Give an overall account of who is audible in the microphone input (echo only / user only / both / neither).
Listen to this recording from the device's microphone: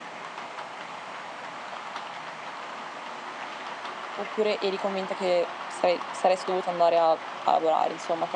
user only